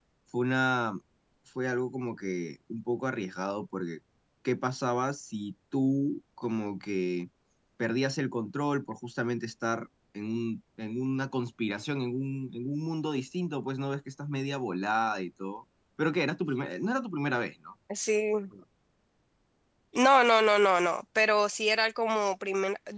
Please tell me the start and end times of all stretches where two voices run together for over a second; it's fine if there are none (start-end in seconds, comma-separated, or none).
none